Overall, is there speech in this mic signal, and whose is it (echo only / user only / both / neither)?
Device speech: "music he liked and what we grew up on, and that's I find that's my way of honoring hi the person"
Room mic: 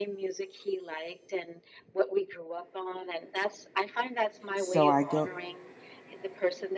both